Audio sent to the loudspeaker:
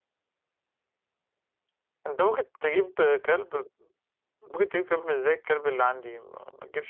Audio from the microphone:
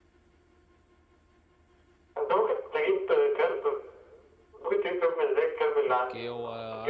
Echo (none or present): present